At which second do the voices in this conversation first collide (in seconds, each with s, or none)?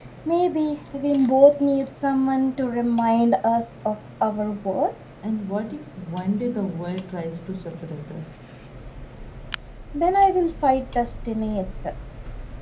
none